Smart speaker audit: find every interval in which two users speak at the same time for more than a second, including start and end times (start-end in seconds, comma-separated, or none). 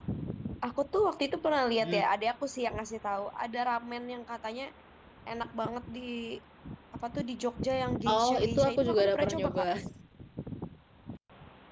8.1-9.6